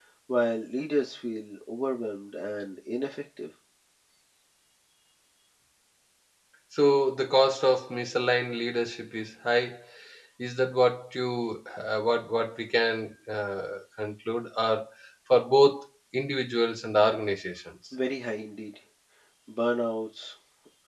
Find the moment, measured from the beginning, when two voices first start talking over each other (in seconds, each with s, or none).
none